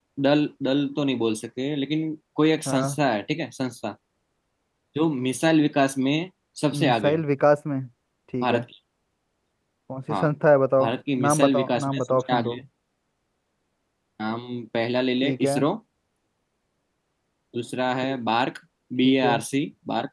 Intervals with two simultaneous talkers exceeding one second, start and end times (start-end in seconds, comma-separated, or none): 11.3-12.6